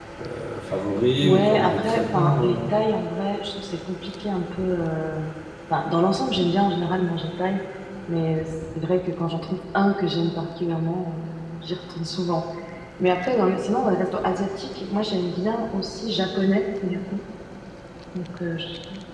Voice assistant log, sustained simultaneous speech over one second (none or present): present